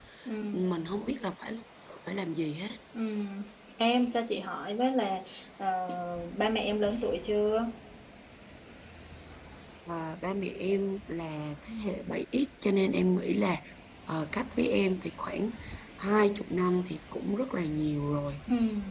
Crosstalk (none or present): none